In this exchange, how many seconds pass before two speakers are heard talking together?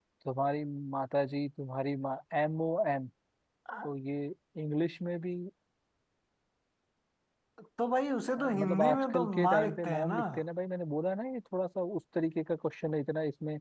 8.4 s

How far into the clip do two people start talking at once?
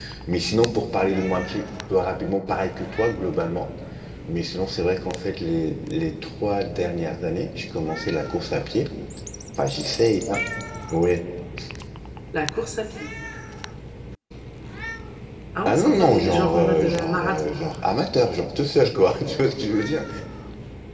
15.7 s

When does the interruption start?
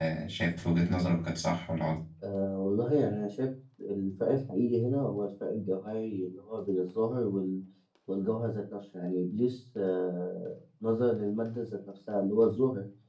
none

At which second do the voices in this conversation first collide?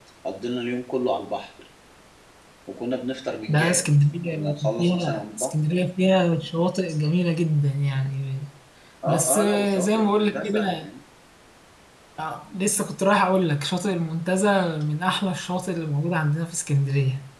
3.5 s

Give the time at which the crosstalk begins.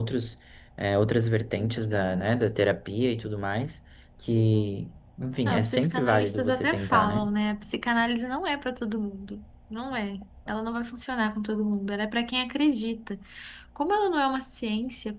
5.5 s

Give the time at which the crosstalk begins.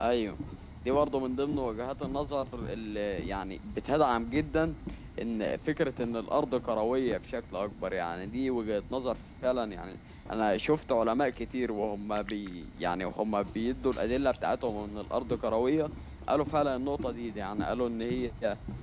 none

